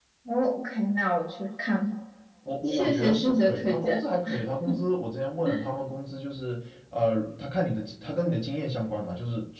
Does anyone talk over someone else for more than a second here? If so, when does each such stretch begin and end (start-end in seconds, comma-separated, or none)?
2.6-4.0